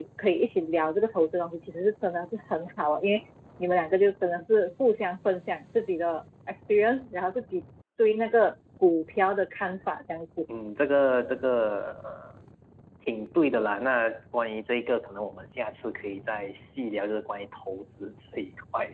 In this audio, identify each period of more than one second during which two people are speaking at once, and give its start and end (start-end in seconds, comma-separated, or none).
none